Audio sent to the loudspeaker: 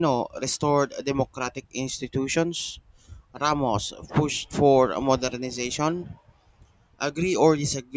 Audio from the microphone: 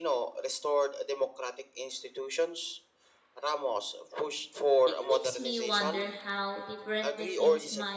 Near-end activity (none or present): present